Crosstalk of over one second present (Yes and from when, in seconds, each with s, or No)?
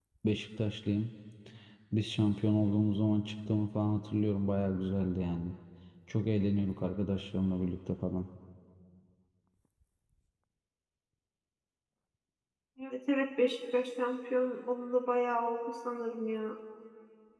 No